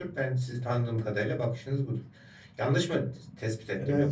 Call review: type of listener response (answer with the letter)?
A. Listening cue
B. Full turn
B